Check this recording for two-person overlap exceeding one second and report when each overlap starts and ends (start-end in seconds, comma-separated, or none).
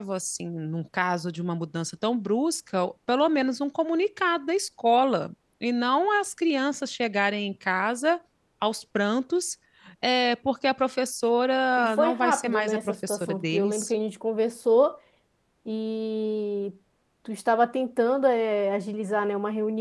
11.8-13.9